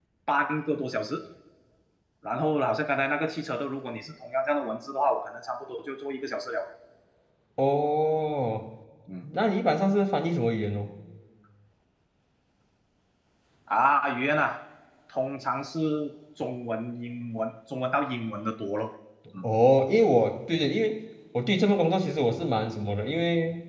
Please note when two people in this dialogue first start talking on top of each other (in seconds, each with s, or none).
none